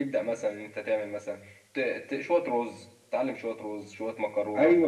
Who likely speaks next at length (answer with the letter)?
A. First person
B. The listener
B